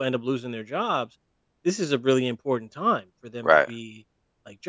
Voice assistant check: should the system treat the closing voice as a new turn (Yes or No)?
No